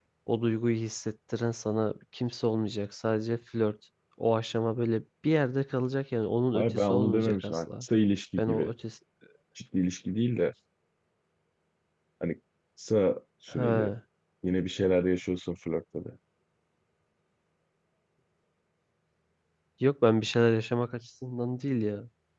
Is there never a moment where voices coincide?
No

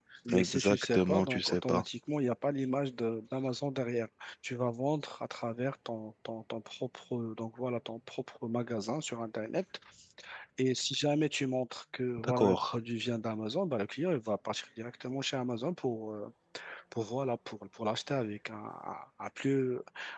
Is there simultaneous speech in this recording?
Yes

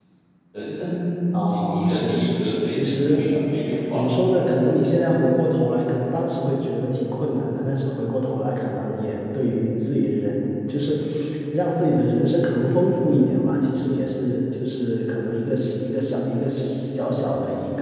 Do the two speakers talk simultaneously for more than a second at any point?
Yes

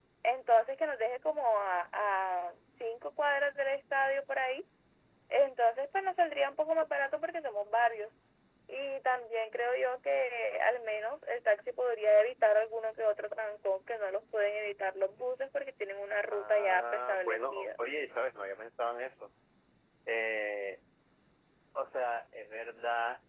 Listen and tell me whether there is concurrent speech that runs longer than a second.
Yes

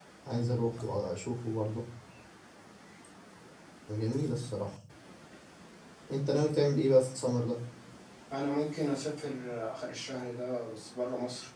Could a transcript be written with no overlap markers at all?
Yes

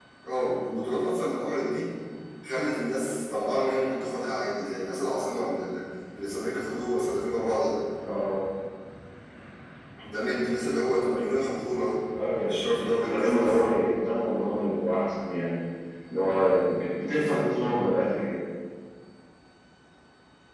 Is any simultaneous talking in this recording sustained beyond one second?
Yes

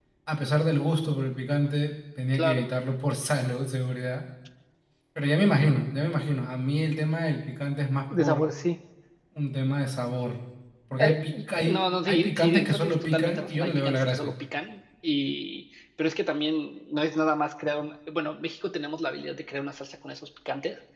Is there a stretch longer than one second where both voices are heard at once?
Yes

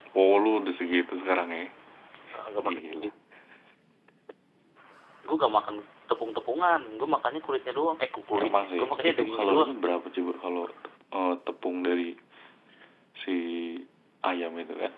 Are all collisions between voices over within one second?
No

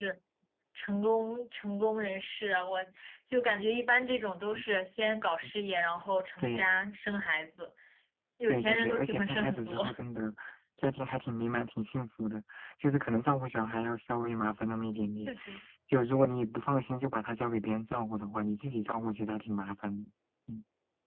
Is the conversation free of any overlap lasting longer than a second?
No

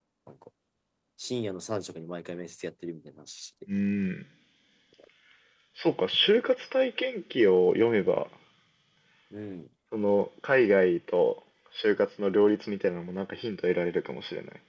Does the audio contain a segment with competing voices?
No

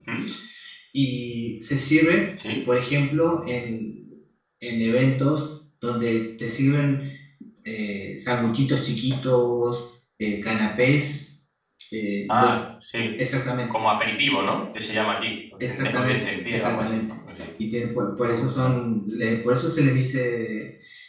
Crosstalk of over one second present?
Yes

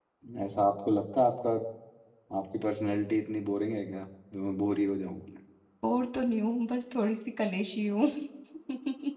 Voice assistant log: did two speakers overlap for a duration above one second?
No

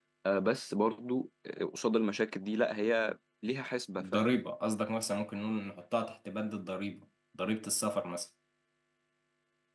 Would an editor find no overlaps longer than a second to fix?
Yes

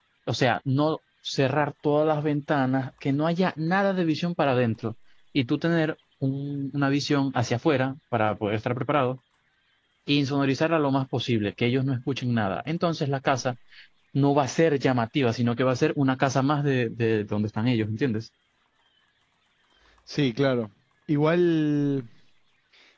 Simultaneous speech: No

